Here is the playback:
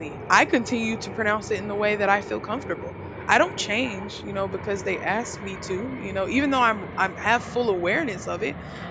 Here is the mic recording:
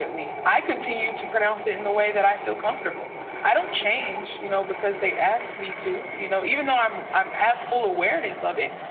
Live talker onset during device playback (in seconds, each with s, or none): none